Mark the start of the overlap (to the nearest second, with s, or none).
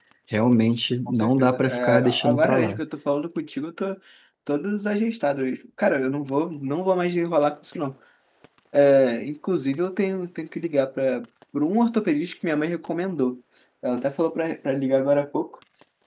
1 s